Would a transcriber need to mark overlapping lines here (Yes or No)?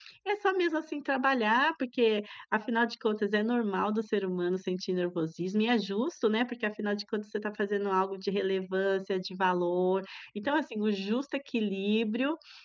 No